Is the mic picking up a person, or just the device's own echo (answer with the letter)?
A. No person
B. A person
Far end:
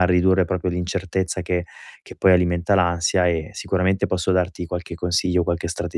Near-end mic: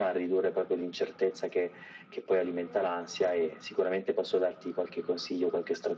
A